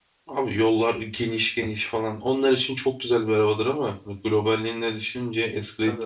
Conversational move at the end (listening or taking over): taking over